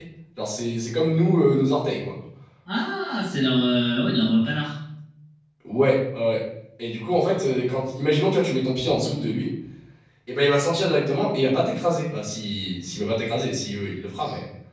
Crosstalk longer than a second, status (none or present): none